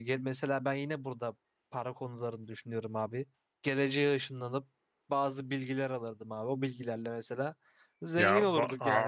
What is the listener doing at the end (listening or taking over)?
taking over